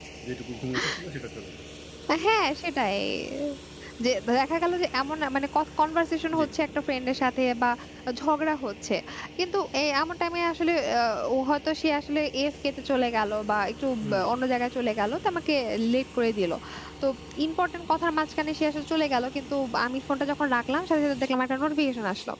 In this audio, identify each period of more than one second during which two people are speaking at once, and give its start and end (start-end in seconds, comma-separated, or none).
none